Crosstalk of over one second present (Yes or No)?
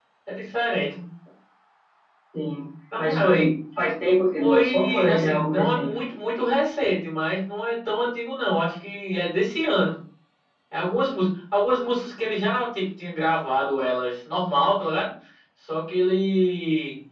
Yes